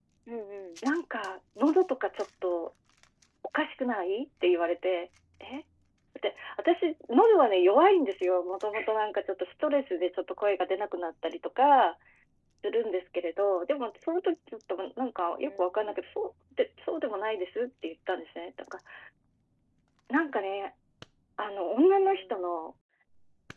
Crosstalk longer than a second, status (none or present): none